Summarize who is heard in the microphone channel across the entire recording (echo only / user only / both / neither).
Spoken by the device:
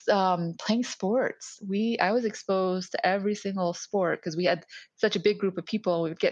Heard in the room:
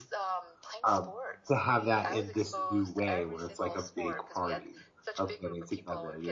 both